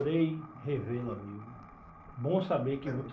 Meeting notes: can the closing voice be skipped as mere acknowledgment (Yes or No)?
Yes